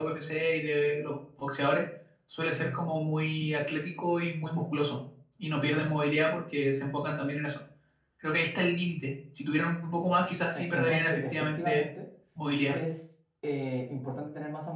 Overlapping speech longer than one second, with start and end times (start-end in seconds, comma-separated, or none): 10.5-11.8